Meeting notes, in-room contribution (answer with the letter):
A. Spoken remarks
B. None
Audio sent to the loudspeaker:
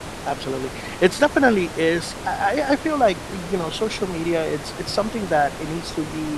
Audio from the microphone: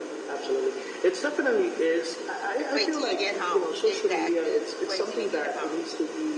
A